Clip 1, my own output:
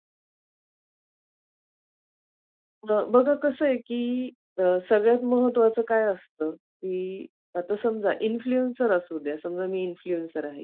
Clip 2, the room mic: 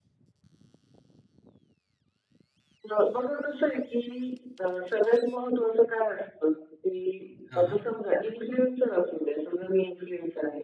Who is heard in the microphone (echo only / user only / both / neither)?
both